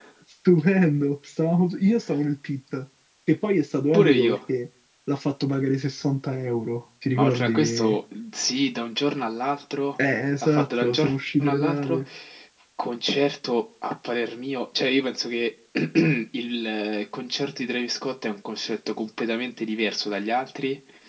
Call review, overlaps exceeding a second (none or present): present